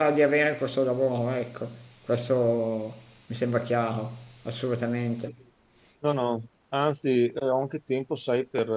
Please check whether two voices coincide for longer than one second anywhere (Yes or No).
No